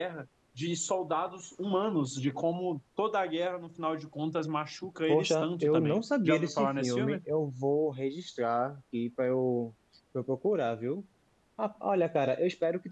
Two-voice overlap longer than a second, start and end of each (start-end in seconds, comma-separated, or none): 5.1-7.2